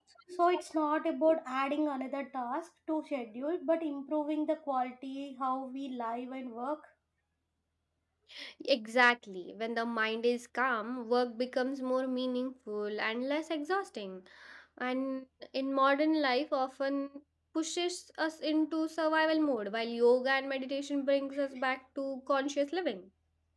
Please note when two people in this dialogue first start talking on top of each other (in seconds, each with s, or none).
none